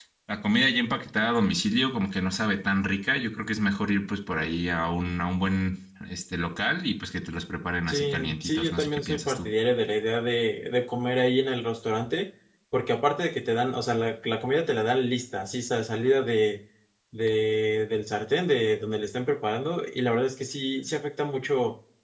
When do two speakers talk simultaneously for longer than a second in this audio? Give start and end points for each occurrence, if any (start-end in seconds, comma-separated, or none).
7.9-9.5